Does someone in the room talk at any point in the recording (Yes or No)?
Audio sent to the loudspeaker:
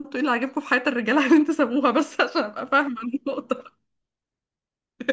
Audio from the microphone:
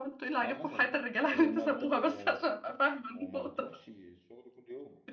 Yes